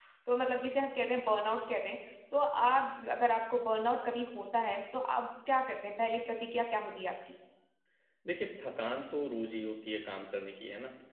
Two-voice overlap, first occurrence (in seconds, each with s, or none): none